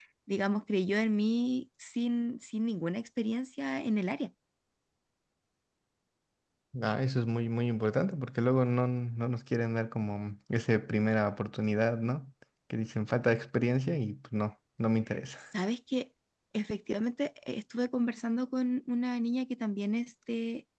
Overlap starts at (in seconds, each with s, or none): none